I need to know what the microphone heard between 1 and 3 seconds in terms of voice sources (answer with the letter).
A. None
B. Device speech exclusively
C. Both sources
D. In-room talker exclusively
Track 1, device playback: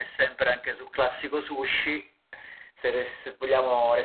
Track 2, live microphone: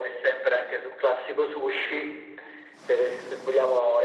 B